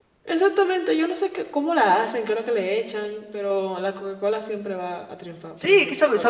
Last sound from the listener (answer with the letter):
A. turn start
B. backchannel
A